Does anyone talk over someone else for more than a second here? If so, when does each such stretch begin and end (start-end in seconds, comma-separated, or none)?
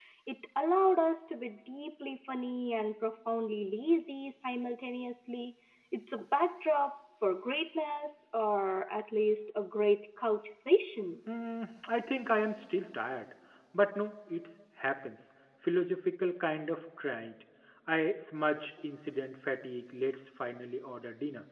none